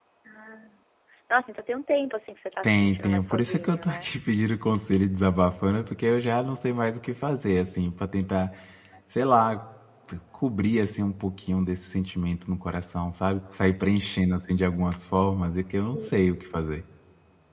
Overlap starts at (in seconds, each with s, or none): 2.6 s